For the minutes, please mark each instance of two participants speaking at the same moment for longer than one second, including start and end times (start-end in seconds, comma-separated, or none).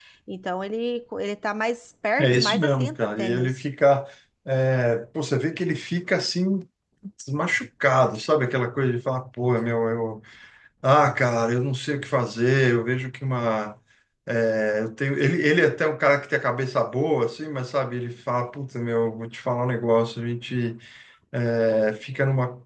2.2-3.6